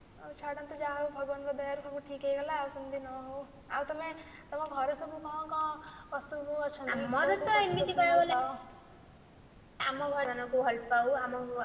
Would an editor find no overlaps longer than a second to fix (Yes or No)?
No